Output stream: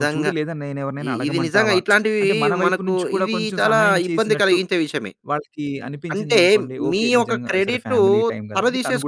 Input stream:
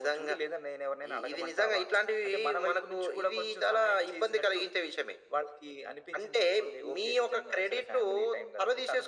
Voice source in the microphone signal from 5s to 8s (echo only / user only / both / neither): echo only